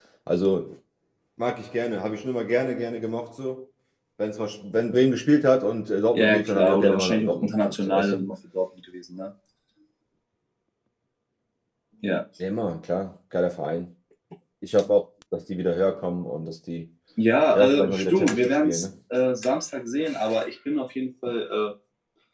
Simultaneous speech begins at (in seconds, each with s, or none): 6.2 s